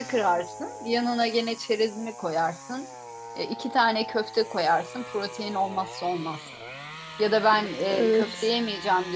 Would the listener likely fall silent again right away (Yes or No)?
Yes